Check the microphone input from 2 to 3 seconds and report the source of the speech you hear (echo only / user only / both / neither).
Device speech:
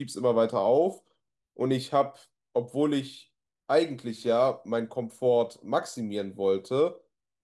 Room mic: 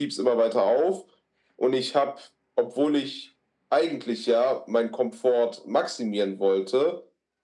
echo only